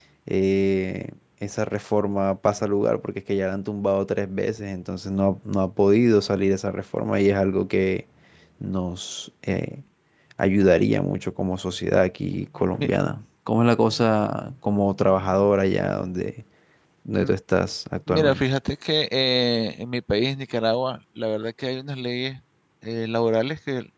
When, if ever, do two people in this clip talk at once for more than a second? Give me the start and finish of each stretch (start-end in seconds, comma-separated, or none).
none